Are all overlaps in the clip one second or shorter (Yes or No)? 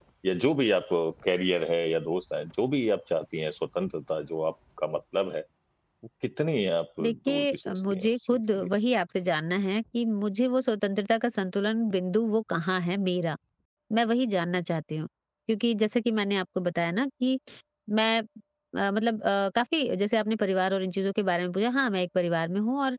No